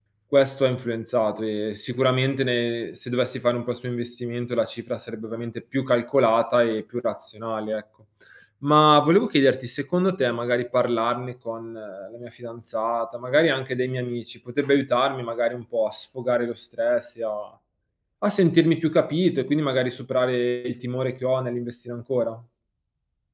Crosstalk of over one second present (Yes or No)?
No